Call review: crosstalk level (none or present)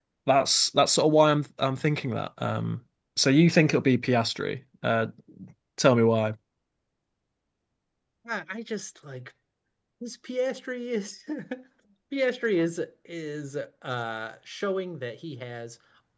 none